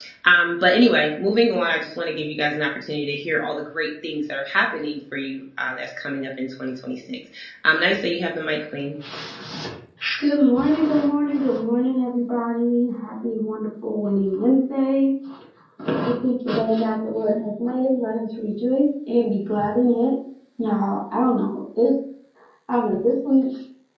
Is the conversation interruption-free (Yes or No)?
Yes